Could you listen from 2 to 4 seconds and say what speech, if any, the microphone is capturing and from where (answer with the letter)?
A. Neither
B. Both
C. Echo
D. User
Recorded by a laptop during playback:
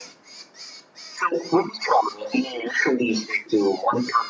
C